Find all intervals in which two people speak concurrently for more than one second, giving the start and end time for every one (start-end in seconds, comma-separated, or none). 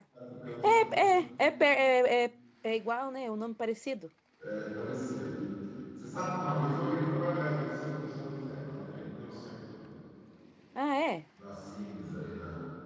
none